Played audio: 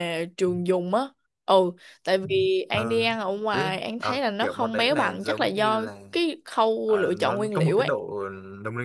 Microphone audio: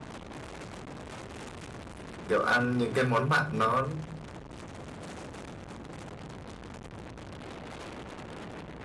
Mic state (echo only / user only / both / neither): user only